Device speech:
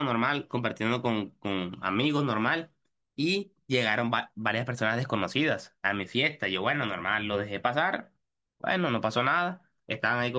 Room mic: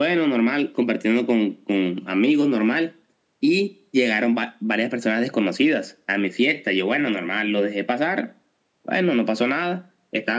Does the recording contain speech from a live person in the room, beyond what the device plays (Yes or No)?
No